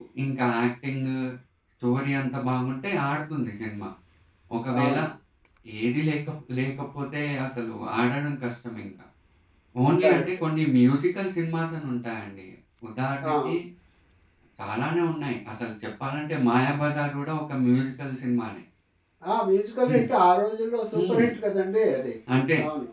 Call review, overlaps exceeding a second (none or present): none